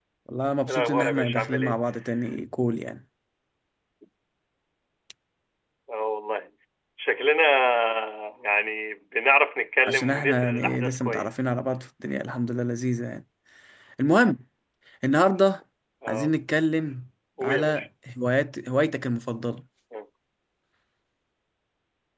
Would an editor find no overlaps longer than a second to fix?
No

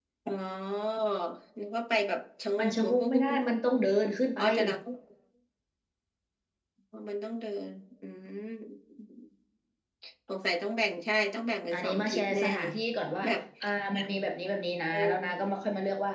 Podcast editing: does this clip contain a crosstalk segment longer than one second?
Yes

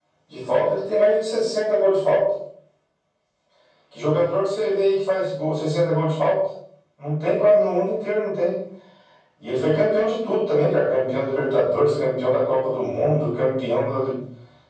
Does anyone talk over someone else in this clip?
No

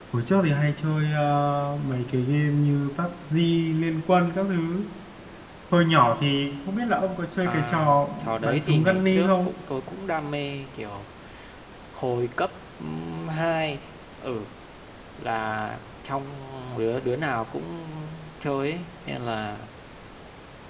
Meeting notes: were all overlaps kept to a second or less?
No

